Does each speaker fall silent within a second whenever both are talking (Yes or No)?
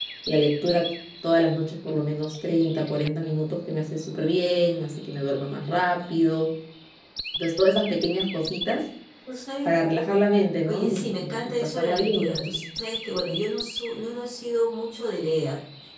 No